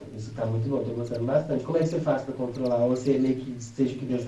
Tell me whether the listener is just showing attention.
No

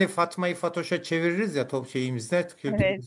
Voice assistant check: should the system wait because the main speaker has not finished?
Yes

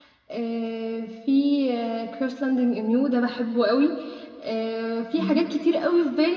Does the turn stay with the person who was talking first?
Yes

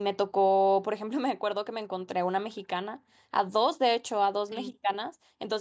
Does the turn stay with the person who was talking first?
Yes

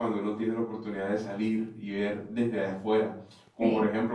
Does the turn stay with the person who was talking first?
Yes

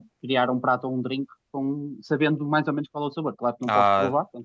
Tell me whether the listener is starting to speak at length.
Yes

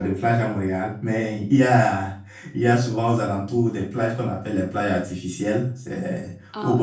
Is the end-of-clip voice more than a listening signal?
No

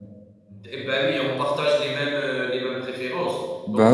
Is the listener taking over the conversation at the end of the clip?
No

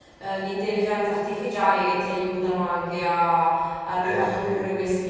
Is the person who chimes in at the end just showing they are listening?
Yes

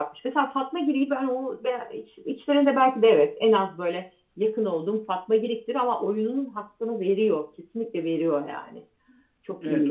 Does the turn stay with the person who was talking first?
No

